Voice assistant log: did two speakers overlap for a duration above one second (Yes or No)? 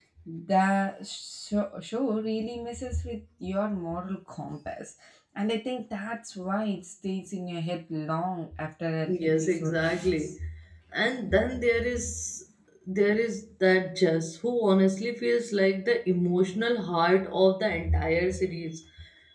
Yes